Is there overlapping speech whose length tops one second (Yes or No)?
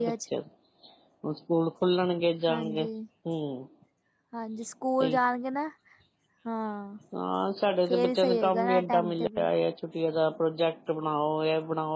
Yes